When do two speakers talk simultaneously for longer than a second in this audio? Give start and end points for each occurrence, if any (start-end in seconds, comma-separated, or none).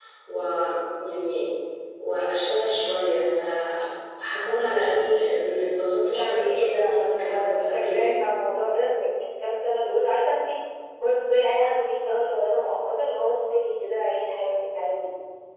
6.1-8.1